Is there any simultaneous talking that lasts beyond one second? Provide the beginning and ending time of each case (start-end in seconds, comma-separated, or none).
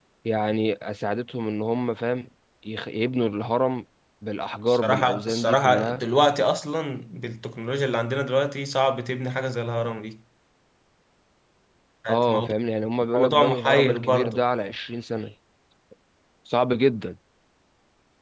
4.7-6.0, 13.2-14.4